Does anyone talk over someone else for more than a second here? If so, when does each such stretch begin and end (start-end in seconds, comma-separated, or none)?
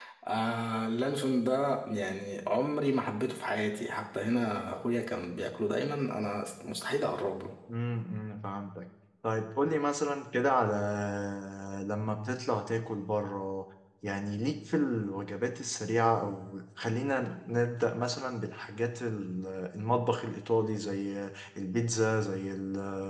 none